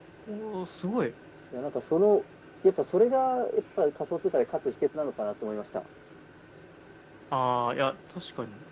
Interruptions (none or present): none